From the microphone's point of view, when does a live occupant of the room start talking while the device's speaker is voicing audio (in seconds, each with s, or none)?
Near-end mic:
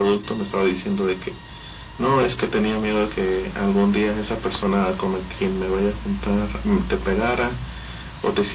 none